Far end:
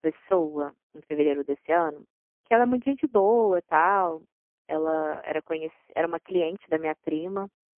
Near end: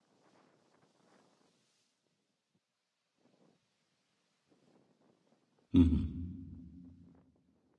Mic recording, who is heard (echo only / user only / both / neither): user only